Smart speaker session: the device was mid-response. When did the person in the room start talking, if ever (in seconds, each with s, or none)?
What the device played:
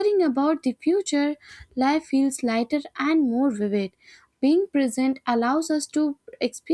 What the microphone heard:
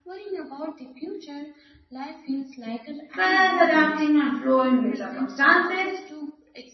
3.1 s